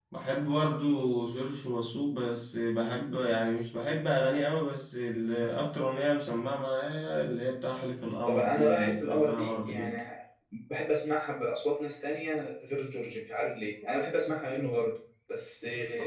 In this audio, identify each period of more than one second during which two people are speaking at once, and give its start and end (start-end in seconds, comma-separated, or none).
8.3-10.0